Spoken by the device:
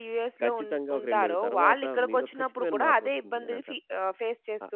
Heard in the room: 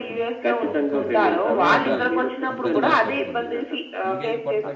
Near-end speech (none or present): present